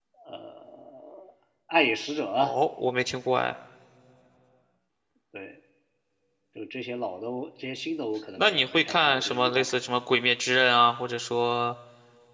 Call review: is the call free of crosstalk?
No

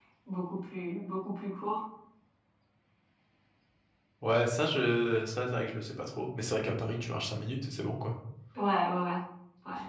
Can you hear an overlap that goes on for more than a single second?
No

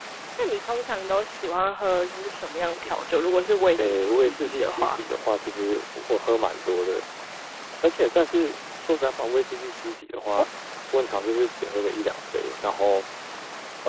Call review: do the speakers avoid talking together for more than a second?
No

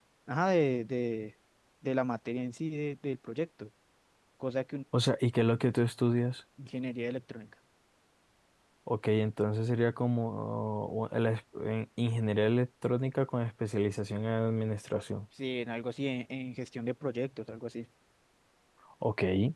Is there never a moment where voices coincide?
Yes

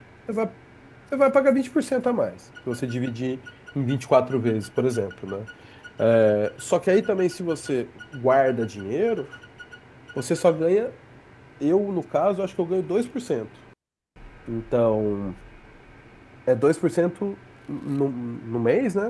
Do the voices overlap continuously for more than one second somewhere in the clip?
No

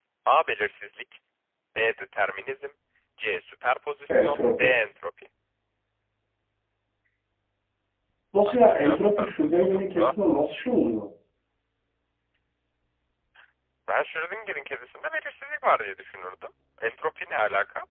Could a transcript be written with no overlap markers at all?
No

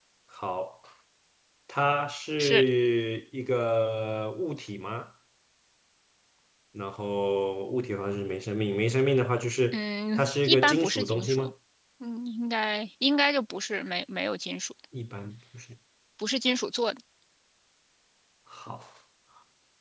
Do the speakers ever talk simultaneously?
Yes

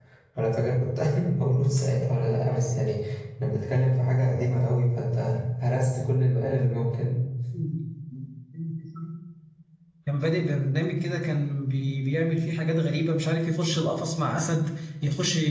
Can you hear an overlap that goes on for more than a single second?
No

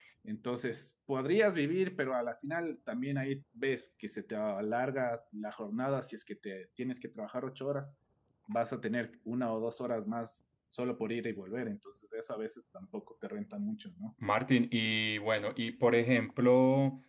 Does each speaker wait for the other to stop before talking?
Yes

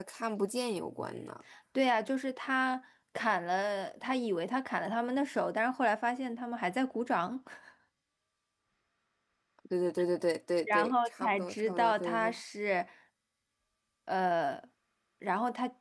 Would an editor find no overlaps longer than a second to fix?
No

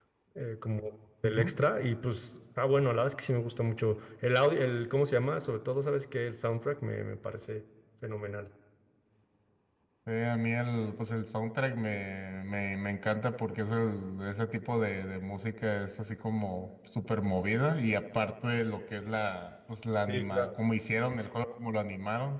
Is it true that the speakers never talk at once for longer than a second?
Yes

